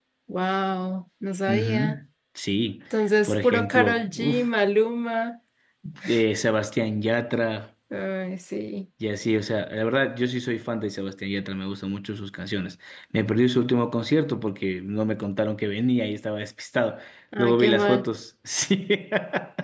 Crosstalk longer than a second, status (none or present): present